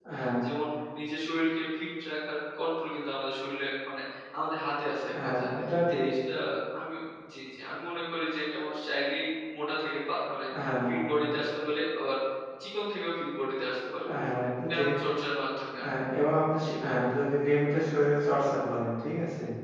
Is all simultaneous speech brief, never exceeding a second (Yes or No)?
Yes